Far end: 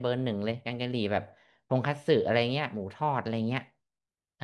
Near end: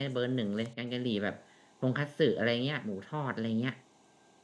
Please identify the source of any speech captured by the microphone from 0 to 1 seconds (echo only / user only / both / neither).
echo only